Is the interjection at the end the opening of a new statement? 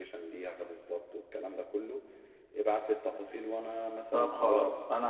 Yes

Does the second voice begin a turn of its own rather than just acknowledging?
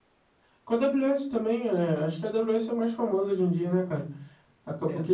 No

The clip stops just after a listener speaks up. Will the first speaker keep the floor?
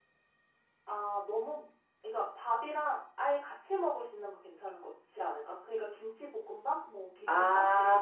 No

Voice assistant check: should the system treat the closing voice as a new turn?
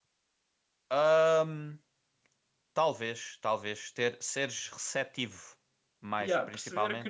Yes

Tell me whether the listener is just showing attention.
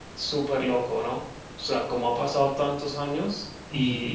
Yes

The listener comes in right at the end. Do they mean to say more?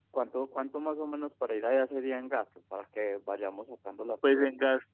Yes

